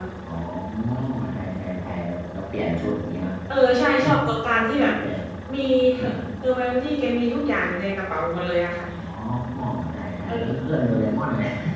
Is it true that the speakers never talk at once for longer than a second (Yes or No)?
Yes